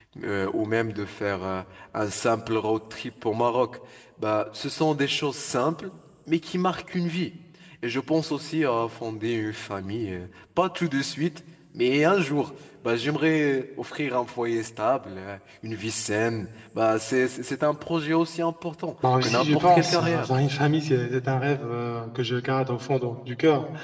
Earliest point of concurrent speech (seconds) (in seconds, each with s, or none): 19.0 s